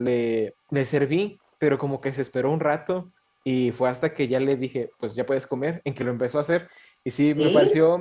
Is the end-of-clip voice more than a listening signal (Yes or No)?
No